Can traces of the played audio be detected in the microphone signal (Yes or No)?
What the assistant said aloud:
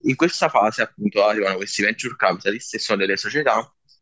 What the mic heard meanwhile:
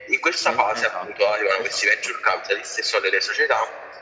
Yes